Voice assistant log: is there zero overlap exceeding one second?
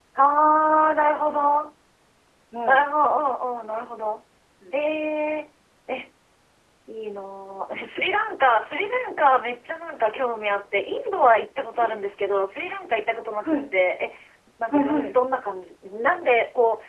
Yes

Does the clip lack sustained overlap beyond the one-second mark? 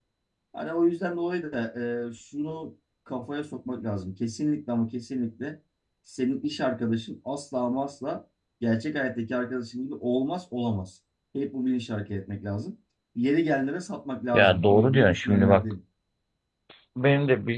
No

